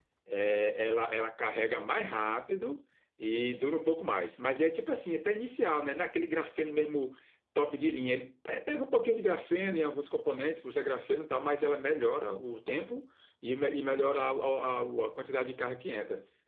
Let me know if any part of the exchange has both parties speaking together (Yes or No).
No